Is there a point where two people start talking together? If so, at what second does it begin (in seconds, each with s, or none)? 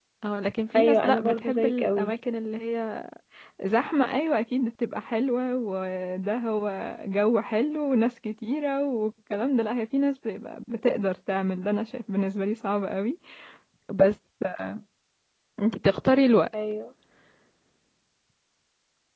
0.8 s